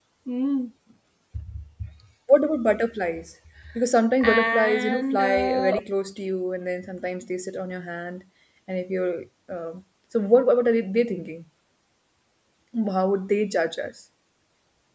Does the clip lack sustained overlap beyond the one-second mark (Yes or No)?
No